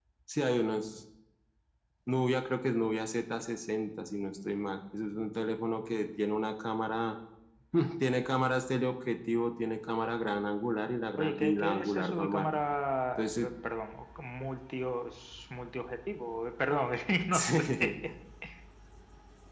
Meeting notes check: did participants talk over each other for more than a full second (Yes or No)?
Yes